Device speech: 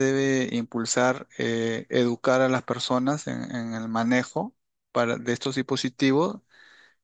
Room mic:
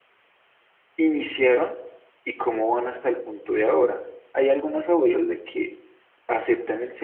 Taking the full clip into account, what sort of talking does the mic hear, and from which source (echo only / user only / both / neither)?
user only